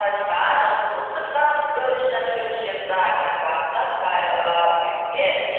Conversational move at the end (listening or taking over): listening